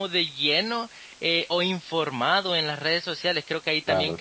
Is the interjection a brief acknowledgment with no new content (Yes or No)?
Yes